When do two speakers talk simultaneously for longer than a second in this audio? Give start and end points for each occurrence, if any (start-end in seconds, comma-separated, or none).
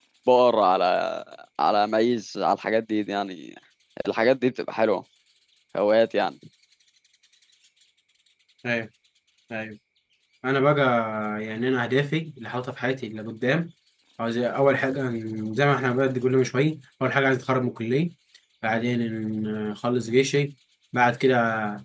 none